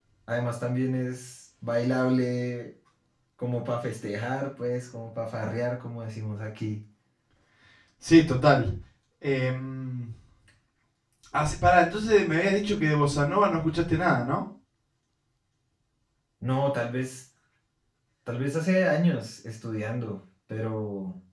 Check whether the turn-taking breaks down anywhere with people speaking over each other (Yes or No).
No